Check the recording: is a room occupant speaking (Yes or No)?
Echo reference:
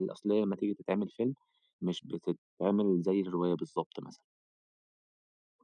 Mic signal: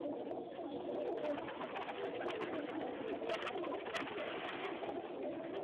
No